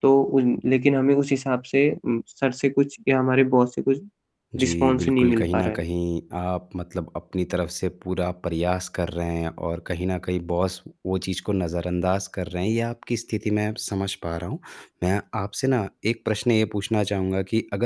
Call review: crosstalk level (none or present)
present